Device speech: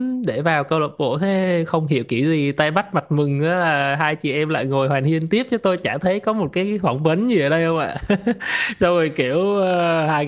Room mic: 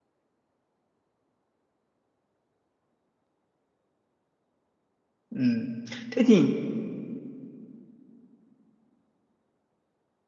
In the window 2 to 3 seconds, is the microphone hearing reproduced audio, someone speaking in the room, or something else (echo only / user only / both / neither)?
neither